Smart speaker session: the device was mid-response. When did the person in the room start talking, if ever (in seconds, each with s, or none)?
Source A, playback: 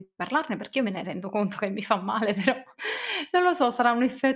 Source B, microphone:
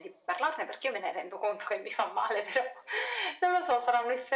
none